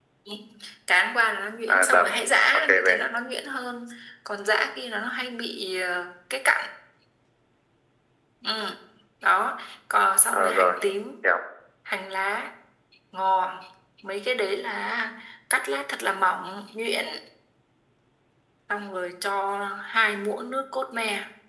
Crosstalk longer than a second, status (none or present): none